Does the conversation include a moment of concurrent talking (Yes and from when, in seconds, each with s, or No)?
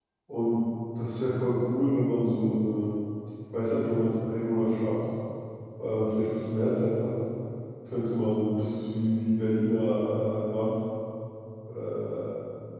No